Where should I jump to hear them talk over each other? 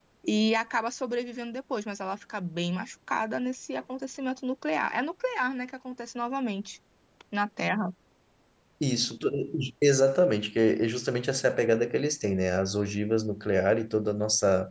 none

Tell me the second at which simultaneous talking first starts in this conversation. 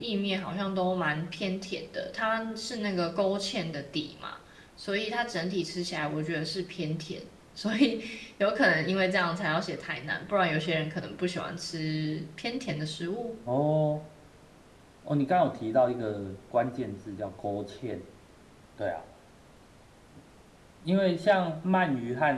none

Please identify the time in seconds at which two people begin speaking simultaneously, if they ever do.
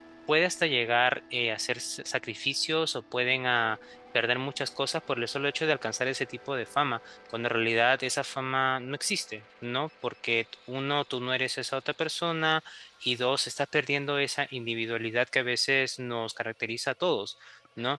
none

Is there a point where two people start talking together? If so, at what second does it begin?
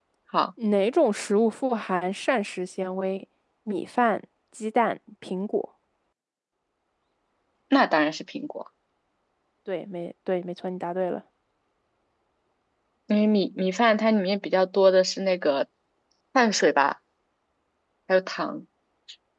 none

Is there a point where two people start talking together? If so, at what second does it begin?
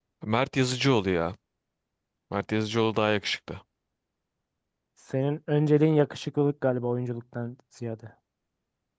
none

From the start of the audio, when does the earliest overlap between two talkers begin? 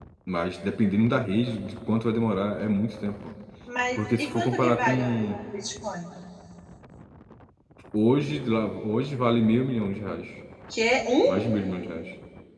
4.0 s

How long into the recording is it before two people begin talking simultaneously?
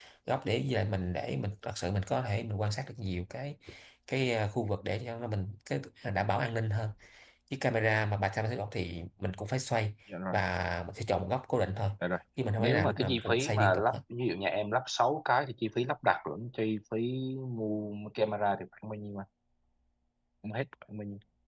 12.6 s

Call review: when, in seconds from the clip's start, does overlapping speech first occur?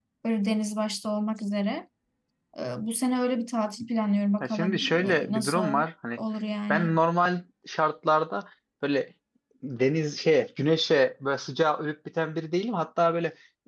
4.4 s

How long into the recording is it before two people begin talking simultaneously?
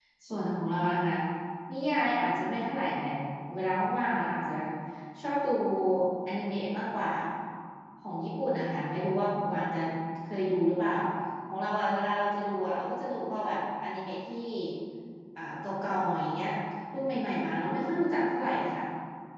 none

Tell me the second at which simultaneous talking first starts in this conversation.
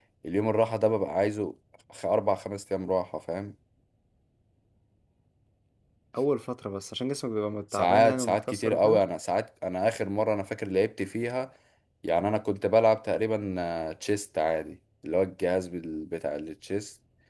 7.7 s

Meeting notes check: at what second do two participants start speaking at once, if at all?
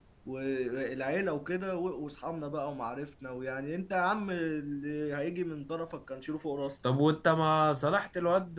none

